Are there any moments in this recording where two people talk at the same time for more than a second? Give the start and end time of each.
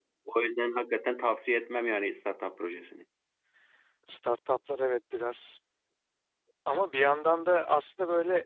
none

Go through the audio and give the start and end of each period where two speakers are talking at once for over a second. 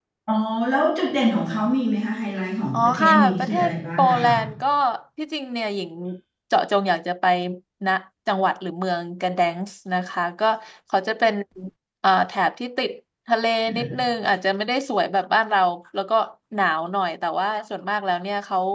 2.7-4.3

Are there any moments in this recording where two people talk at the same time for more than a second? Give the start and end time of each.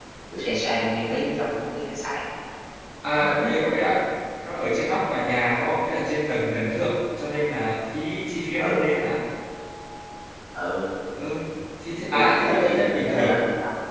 12.1-13.3

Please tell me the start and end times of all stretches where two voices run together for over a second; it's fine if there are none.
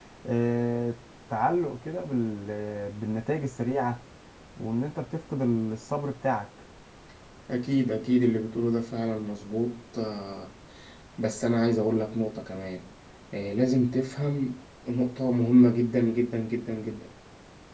none

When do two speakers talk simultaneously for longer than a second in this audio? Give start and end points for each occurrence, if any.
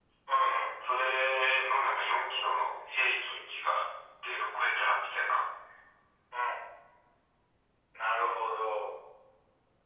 none

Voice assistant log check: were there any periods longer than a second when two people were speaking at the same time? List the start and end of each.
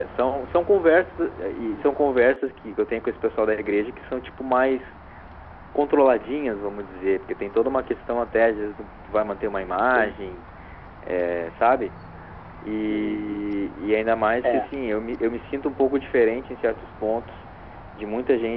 none

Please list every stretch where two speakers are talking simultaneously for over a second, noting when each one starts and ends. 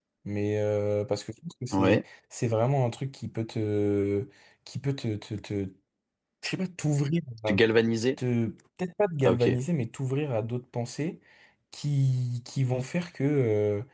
none

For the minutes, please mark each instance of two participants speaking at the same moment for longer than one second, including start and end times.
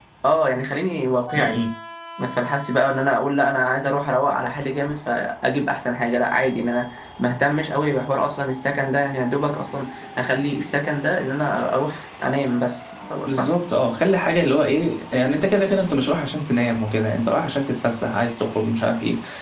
none

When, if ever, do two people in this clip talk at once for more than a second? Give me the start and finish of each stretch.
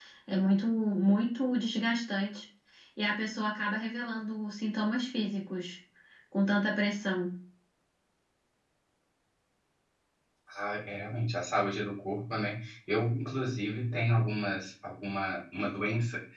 none

